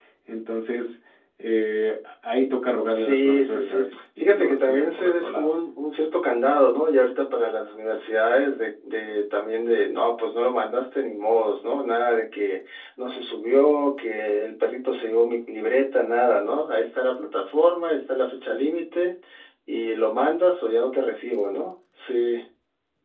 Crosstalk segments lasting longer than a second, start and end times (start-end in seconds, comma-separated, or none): 2.9-5.5